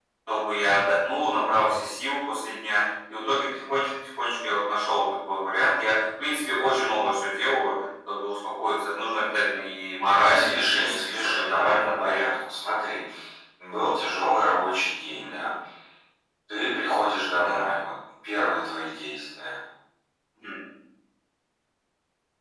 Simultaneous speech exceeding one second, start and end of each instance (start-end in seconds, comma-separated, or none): 10.1-12.2